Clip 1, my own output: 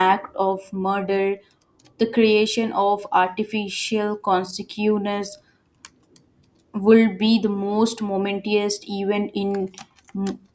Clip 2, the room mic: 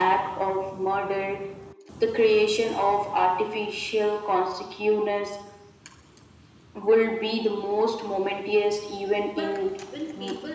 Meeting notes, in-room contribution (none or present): present